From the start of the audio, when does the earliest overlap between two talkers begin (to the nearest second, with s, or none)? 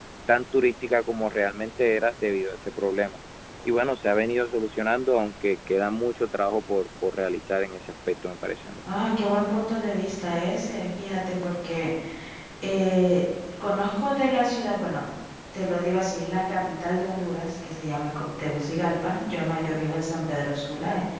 none